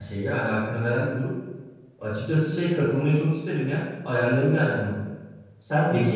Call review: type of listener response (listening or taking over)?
listening